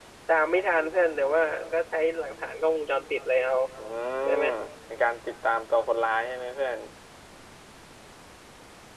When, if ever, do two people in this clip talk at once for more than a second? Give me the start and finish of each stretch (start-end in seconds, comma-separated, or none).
none